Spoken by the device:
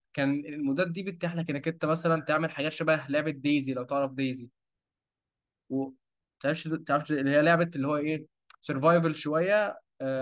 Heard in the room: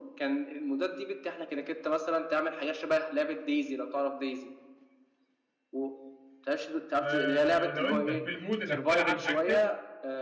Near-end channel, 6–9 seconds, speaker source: both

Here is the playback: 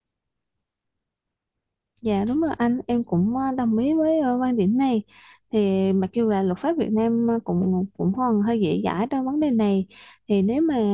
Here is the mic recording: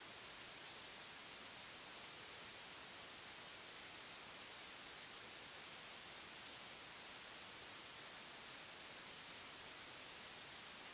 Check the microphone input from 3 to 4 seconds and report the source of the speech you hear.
neither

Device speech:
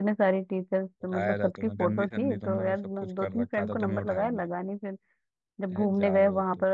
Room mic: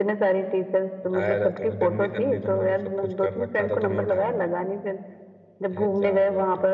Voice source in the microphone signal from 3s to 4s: echo only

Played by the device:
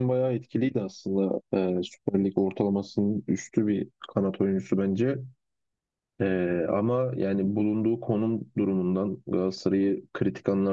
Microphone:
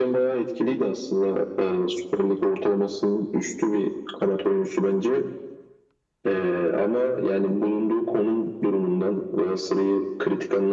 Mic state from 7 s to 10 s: echo only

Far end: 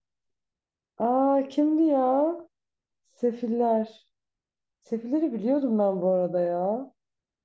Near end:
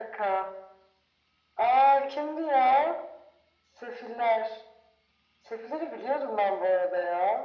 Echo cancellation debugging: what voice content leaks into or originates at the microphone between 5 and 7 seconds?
echo only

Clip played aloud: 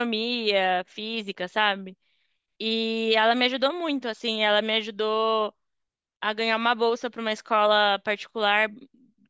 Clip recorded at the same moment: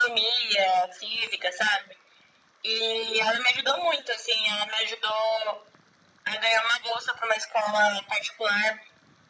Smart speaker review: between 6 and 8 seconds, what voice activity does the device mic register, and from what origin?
echo only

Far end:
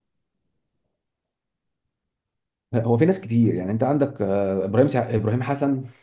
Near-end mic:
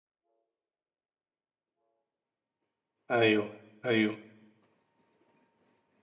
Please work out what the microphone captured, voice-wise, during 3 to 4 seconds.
user only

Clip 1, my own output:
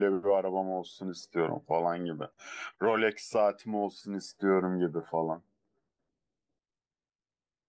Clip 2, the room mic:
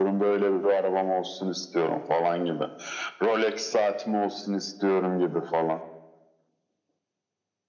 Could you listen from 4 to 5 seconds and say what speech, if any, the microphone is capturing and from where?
echo only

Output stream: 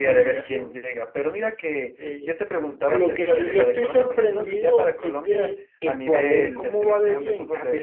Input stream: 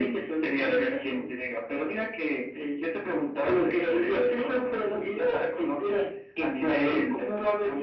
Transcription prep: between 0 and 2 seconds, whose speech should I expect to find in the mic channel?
echo only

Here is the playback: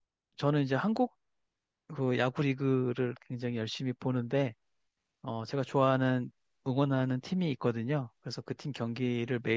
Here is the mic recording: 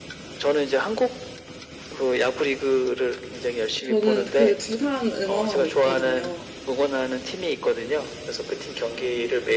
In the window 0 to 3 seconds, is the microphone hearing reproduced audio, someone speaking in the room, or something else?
echo only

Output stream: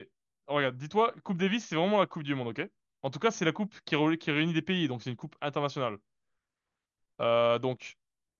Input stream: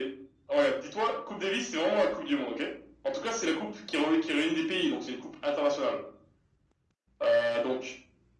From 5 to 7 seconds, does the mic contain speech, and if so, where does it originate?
echo only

